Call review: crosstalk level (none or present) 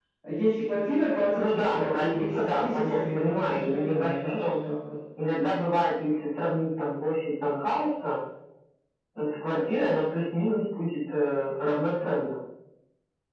present